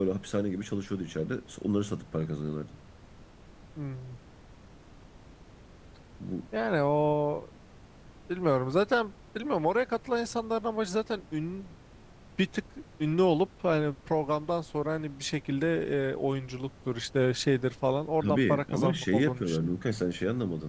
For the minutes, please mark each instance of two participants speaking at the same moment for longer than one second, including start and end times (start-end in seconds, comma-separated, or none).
18.2-19.7